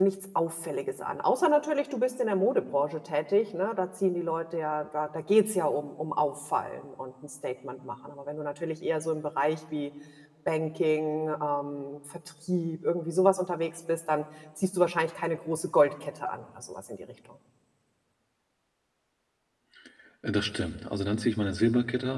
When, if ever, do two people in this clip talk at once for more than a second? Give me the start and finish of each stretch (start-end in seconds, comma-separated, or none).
none